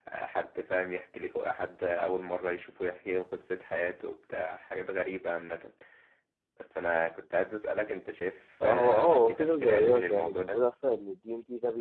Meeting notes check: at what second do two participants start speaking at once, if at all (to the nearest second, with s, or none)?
9 s